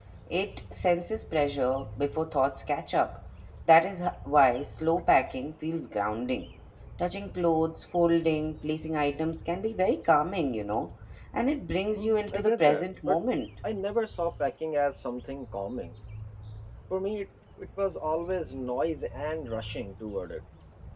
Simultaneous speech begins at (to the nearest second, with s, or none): 12 s